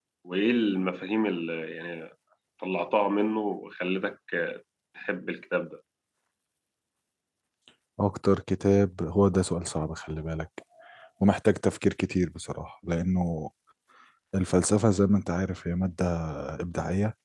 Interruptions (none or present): none